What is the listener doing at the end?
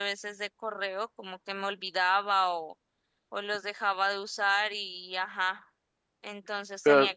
listening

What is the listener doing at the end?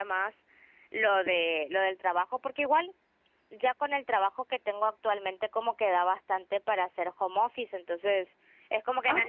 listening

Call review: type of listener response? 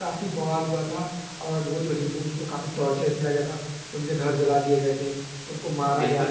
taking over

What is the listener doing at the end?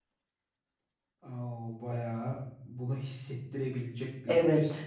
taking over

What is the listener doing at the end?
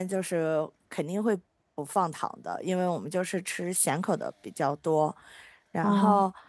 listening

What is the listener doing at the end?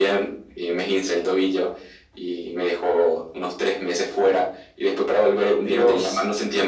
listening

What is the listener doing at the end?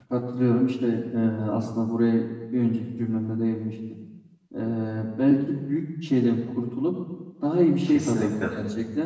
listening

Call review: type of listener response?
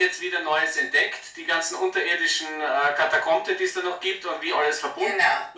listening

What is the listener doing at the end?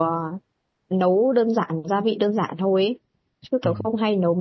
listening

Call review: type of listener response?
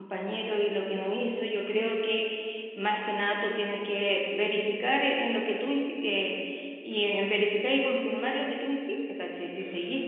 listening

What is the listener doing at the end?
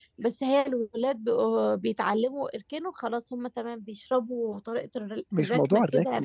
taking over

